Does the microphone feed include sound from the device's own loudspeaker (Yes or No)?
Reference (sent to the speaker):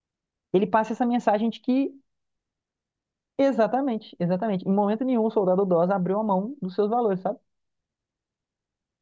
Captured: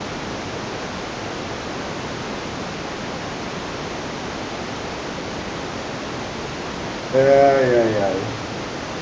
No